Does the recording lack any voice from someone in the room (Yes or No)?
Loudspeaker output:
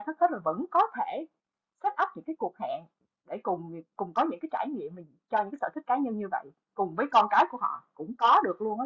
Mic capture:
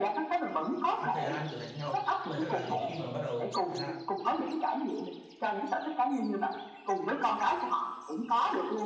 No